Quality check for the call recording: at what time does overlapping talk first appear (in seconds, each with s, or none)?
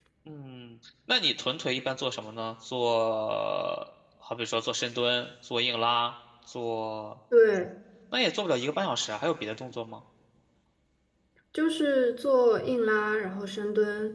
none